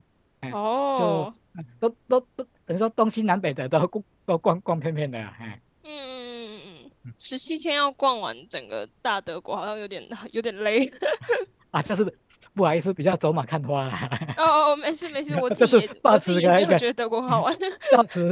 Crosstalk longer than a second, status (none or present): present